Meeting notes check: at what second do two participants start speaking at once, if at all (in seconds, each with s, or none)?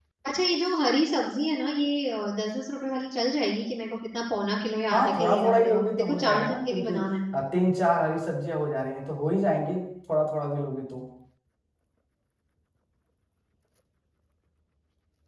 4.9 s